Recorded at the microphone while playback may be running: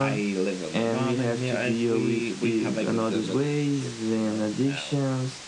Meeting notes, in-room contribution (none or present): none